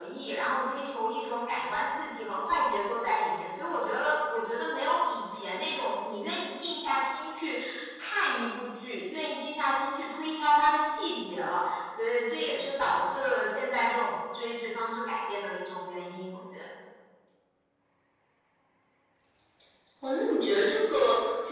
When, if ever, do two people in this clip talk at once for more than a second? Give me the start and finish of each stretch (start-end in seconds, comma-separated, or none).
none